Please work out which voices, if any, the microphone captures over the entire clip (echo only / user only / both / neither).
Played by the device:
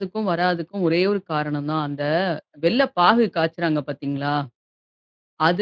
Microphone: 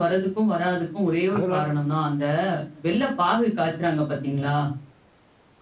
both